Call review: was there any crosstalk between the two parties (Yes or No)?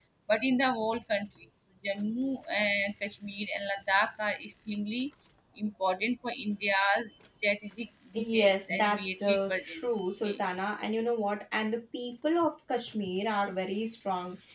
Yes